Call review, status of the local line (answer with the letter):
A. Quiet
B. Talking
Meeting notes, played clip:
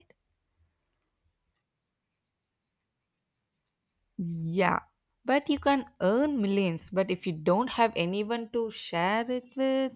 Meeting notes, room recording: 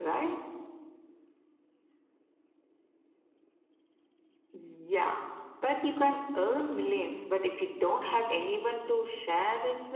A